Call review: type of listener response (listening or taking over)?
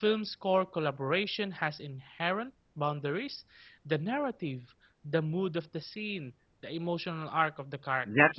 taking over